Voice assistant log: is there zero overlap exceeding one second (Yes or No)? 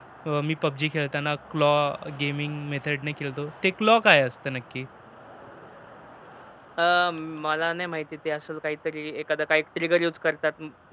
Yes